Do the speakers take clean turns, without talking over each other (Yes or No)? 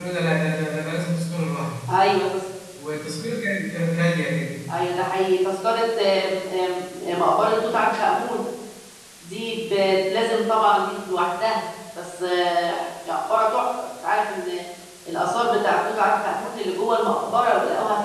Yes